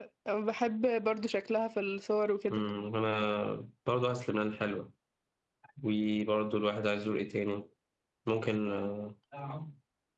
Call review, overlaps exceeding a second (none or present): none